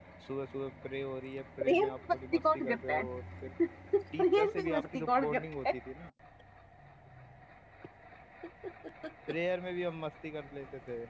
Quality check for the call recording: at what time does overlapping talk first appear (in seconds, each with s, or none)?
1.6 s